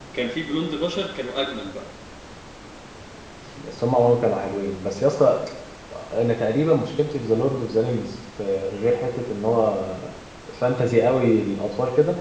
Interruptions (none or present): none